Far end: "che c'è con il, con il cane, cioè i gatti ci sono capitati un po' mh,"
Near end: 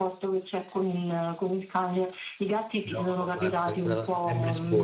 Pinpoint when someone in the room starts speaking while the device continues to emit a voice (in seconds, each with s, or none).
2.8 s